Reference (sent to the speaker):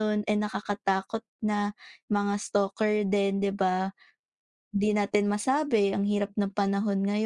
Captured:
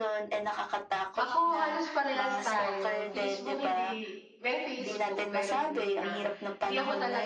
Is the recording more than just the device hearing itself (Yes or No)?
Yes